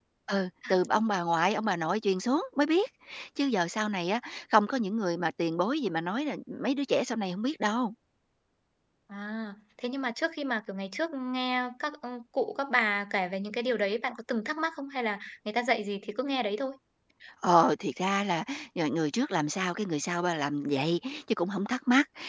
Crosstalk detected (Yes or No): No